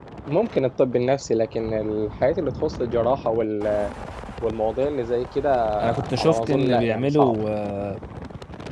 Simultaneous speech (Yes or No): Yes